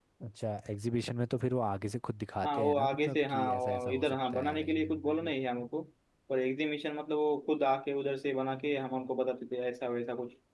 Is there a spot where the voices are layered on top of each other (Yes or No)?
Yes